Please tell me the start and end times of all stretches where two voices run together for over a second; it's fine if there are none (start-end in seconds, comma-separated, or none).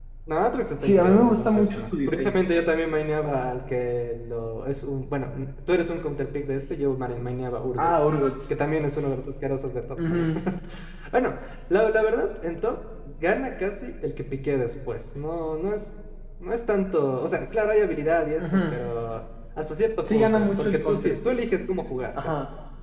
0.8-2.4, 20.1-21.4